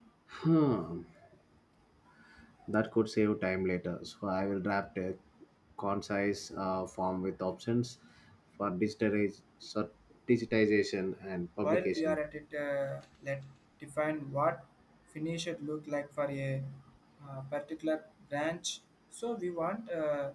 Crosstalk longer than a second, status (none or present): none